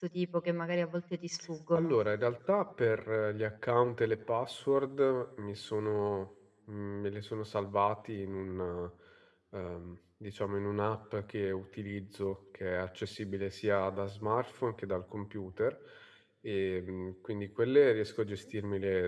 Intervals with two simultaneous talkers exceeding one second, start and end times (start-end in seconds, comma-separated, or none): none